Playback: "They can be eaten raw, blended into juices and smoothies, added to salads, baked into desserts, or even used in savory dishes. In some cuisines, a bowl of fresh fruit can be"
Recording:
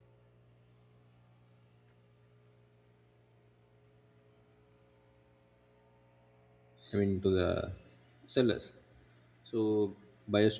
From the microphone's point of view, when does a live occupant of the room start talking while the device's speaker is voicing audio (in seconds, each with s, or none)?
6.9 s